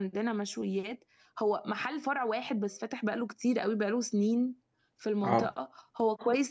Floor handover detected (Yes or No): No